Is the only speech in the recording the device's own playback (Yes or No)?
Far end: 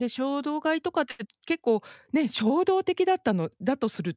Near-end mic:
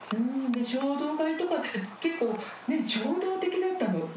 Yes